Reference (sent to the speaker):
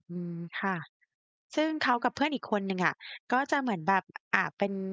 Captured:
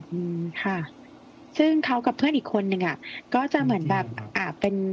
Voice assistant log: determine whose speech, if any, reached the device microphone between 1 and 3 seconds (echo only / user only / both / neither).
echo only